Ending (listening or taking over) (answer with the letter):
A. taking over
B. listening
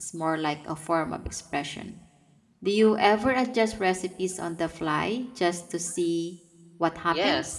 A